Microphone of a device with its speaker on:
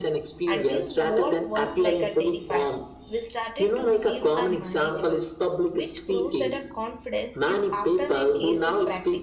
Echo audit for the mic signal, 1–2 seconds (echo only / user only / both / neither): both